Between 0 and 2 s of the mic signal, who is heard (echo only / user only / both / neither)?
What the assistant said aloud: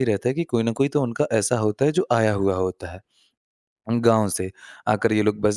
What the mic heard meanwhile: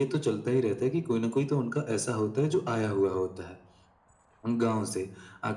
echo only